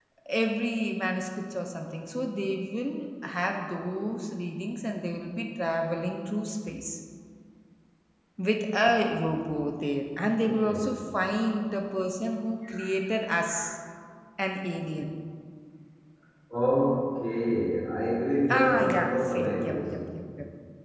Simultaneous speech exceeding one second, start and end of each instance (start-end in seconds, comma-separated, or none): 18.6-20.0